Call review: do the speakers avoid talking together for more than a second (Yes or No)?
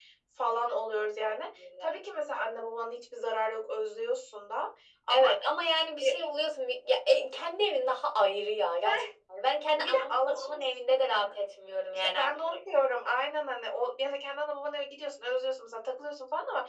No